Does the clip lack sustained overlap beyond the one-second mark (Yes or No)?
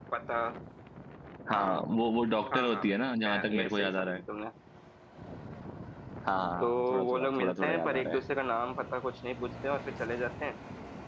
No